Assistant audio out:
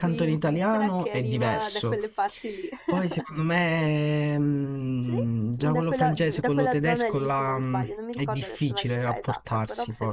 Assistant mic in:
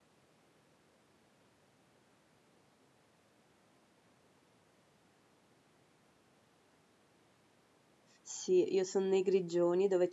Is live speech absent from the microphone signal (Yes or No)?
No